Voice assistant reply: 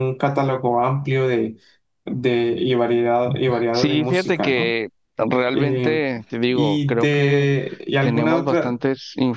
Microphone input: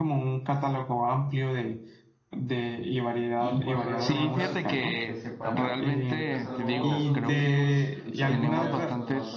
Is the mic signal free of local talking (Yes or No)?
No